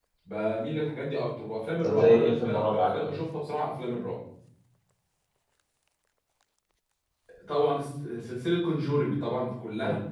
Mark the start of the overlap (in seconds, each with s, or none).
1.8 s